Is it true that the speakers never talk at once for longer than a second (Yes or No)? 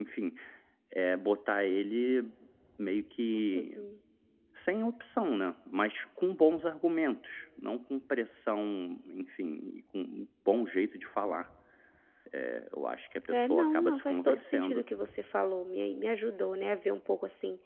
No